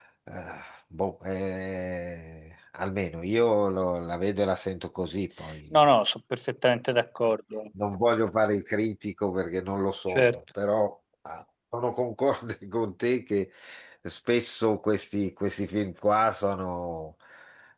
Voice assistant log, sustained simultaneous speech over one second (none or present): none